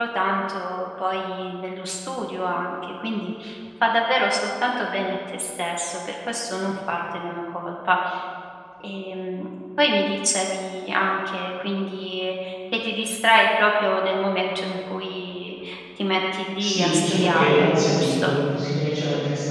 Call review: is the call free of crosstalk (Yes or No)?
No